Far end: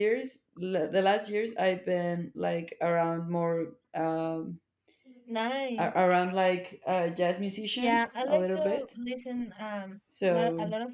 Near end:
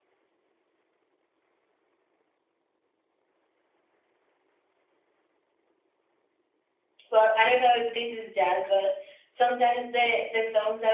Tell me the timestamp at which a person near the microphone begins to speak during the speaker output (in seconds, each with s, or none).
7.1 s